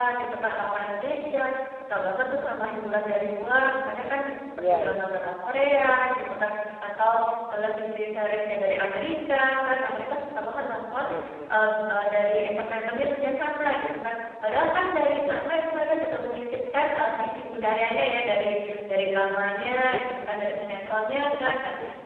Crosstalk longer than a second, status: none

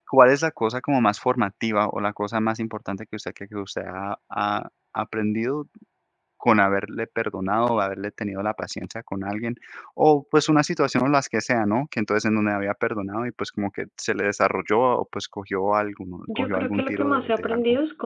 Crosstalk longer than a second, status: present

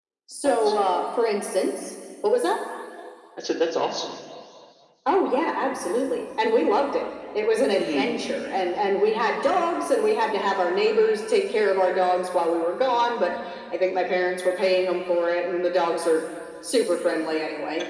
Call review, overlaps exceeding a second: none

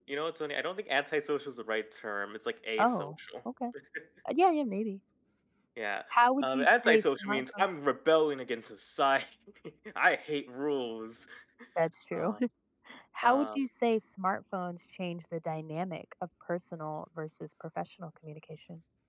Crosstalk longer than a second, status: present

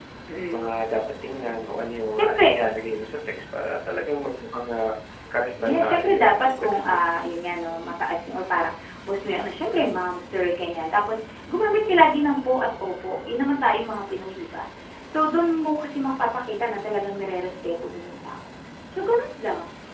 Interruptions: present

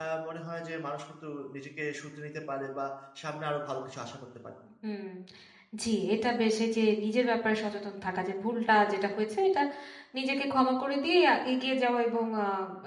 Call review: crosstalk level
none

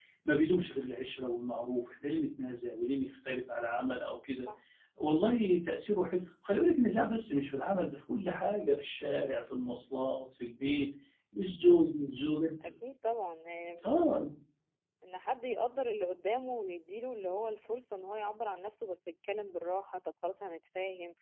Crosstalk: none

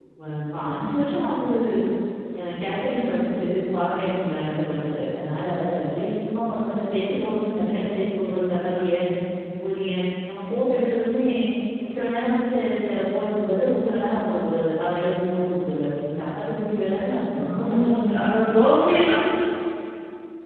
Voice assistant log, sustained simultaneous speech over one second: none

